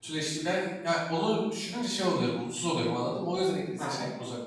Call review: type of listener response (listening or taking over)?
taking over